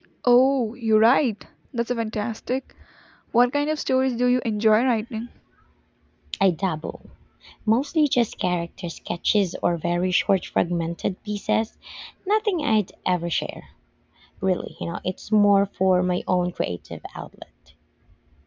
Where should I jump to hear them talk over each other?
none

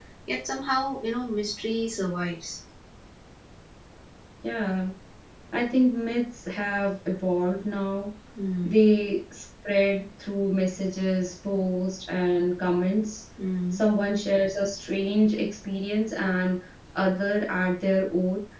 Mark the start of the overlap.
none

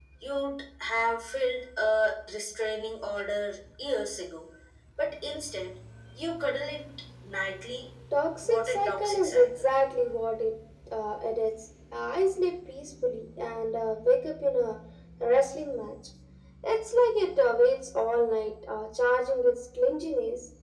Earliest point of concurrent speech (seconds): 8.5 s

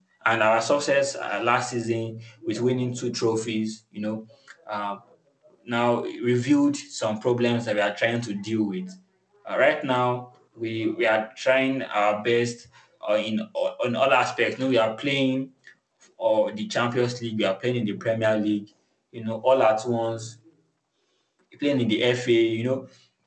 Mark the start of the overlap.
none

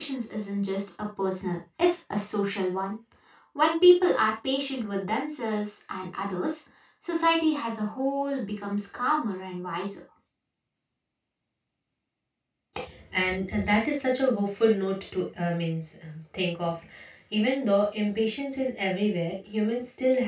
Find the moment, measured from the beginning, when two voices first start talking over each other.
none

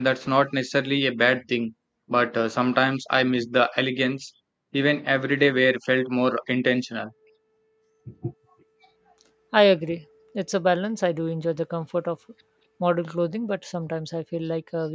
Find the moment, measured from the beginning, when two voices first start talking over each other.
none

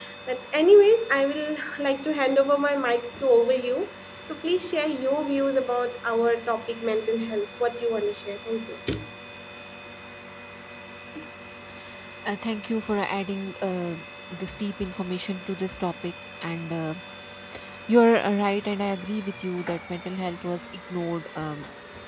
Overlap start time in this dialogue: none

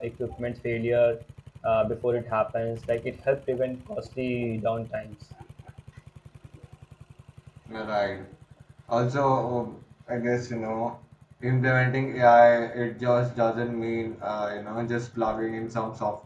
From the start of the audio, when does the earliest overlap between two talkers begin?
none

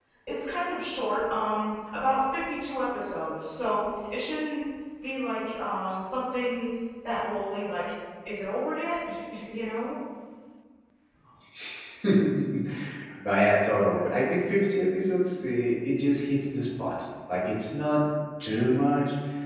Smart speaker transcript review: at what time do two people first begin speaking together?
none

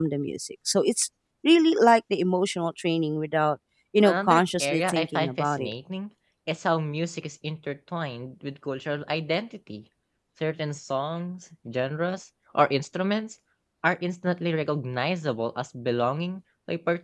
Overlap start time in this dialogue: 4.0 s

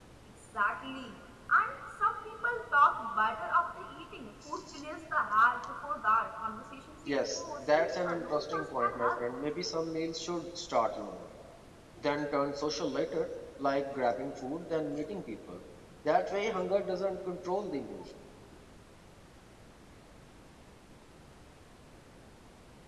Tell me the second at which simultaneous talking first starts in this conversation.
7.1 s

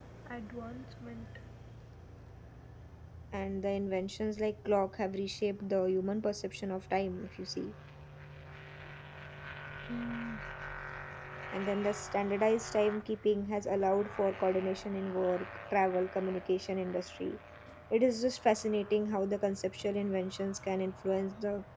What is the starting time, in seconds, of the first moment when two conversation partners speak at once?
none

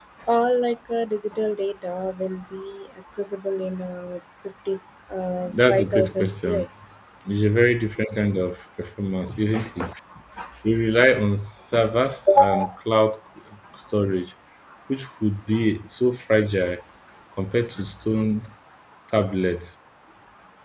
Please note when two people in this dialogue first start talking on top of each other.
5.5 s

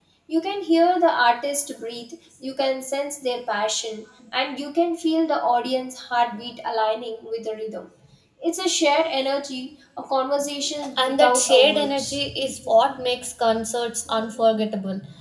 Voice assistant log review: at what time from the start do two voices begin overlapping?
10.8 s

